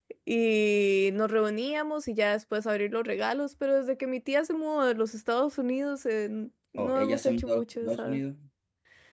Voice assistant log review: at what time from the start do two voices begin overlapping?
7 s

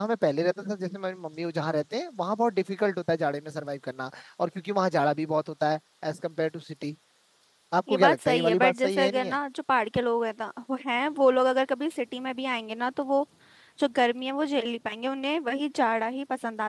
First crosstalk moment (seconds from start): 8 s

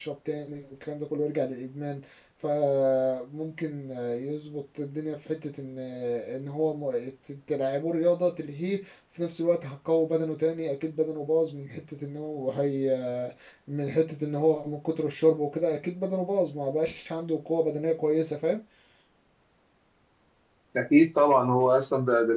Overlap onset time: none

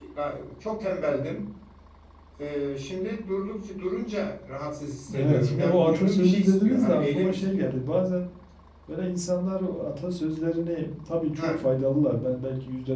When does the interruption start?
5 s

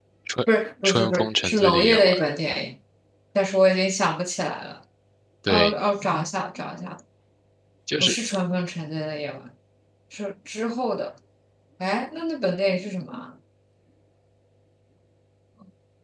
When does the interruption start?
1 s

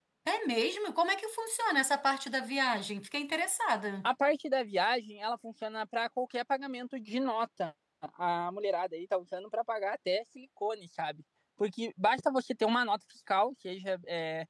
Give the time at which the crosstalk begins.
none

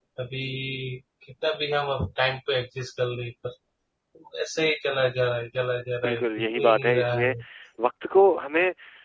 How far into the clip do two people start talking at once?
6 s

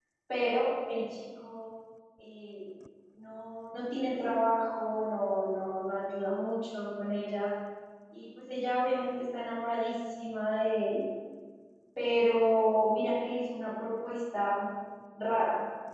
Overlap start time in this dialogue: none

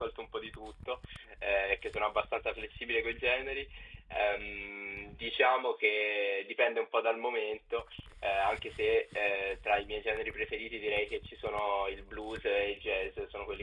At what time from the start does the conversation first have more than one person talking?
none

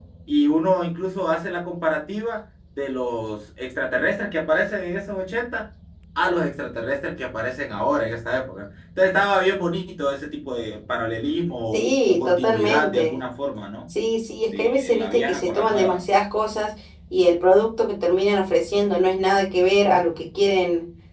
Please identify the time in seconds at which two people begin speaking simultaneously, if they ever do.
12 s

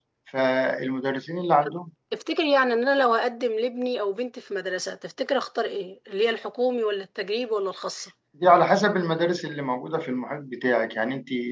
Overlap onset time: none

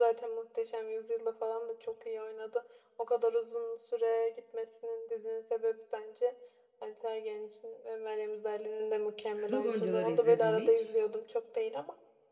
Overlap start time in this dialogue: 9 s

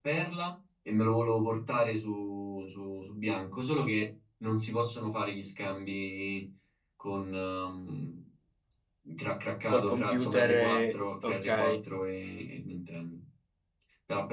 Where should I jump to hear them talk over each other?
10 s

